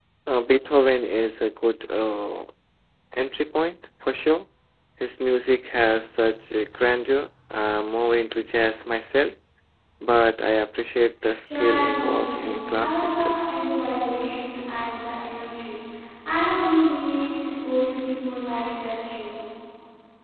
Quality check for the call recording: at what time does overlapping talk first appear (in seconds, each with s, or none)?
11.4 s